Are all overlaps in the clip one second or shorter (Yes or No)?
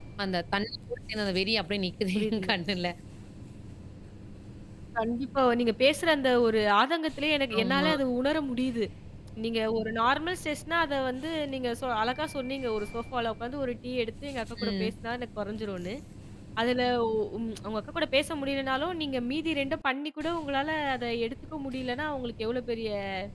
Yes